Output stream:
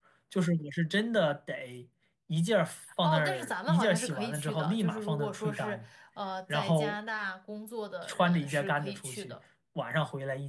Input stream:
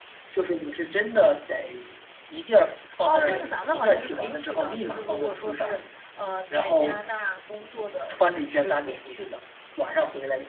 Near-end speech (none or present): none